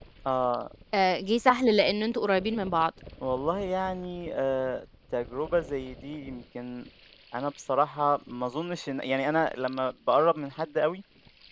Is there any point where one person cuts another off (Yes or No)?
No